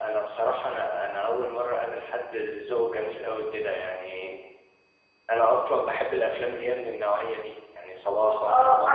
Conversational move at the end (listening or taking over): taking over